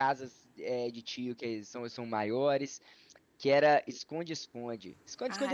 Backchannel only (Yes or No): No